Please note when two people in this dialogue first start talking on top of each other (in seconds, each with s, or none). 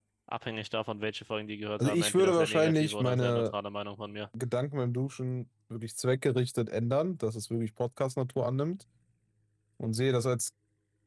1.8 s